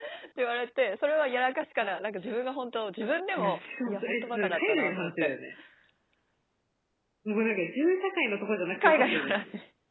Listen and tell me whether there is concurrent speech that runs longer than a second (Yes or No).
Yes